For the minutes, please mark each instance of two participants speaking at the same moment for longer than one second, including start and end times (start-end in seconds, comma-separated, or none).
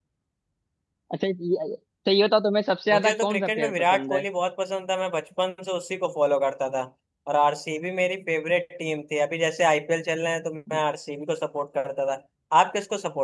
2.9-4.2